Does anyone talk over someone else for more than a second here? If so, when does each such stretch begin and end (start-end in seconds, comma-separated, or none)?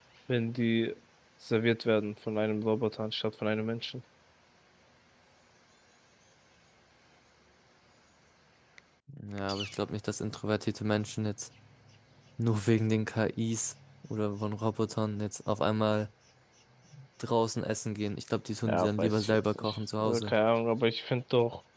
18.6-20.3